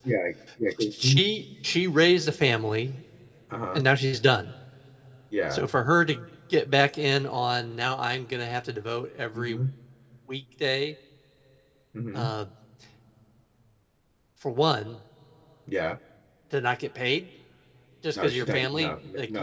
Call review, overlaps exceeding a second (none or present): present